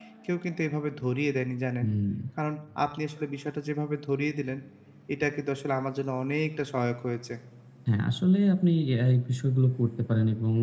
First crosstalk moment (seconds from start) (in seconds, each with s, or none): none